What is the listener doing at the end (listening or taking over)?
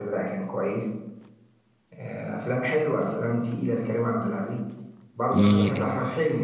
listening